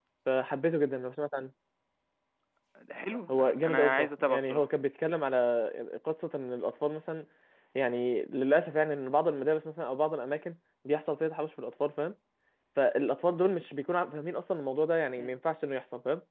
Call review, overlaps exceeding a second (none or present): present